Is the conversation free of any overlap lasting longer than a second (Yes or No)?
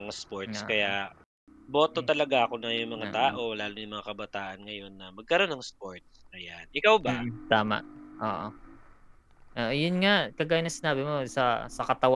Yes